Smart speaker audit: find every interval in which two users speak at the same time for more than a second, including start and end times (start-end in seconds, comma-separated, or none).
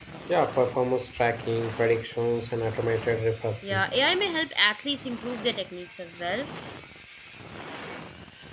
none